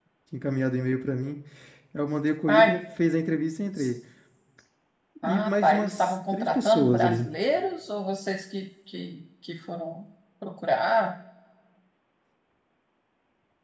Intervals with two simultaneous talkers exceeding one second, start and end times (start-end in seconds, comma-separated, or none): 5.2-7.3